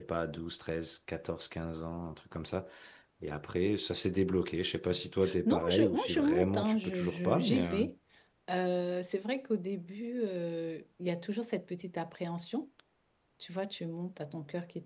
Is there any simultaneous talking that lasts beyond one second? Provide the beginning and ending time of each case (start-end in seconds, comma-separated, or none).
5.5-7.6